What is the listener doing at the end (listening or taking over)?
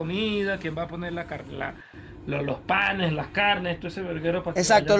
taking over